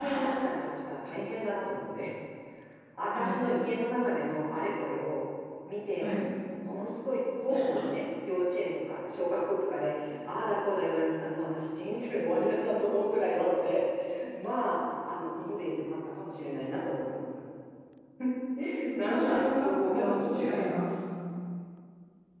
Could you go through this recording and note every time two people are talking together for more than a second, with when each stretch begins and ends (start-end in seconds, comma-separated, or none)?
19.0-20.8